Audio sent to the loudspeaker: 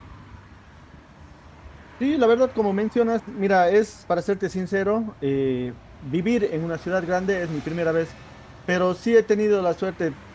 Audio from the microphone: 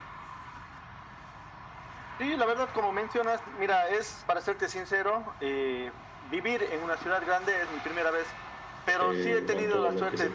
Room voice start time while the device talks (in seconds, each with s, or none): 9.0 s